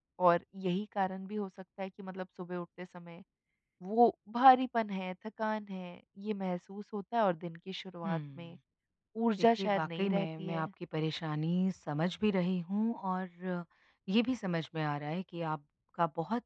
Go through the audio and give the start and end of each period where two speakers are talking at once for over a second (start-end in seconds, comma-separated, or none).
9.4-10.7